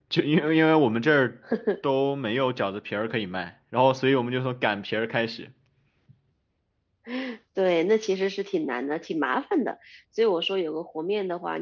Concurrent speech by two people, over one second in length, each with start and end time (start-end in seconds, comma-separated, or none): none